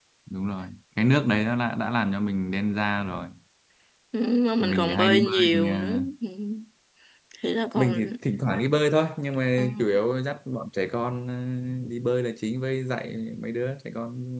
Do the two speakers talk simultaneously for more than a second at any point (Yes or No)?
Yes